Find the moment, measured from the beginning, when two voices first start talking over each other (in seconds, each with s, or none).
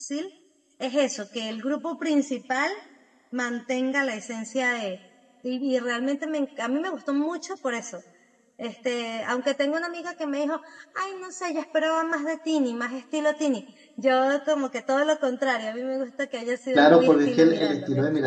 16.7 s